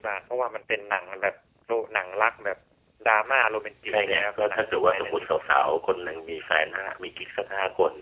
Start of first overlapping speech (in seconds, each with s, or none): 3.9 s